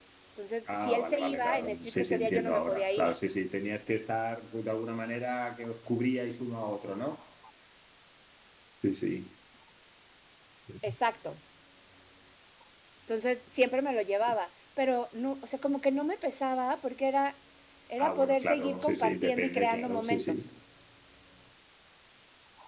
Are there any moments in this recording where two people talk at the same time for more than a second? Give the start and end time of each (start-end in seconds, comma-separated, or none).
0.7-3.1, 18.0-20.4